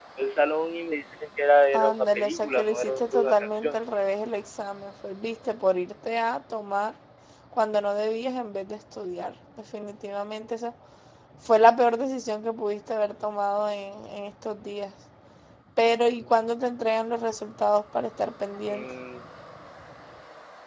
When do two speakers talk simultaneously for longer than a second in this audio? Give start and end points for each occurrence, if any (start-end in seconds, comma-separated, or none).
1.7-3.7